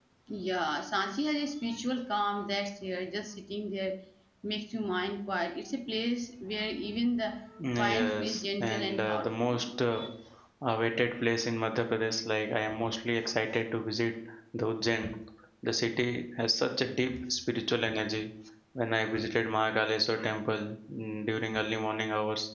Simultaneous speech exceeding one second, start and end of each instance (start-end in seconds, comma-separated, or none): 7.7-9.6